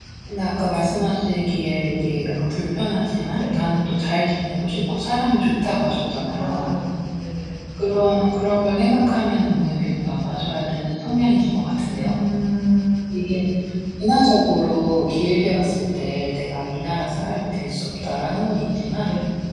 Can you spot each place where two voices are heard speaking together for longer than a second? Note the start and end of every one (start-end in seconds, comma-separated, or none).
none